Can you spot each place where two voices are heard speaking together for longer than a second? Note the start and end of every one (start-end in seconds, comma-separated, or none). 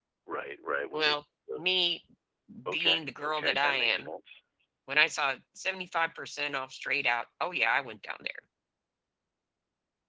2.7-4.1